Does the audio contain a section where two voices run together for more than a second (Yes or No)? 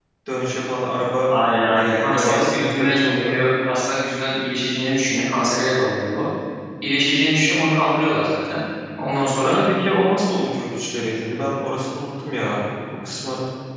Yes